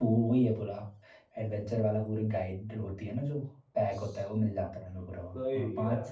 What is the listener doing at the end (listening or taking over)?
listening